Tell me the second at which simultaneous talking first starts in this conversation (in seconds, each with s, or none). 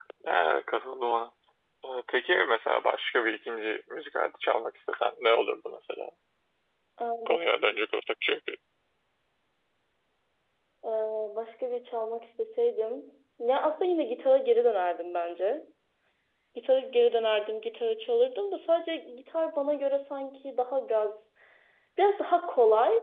none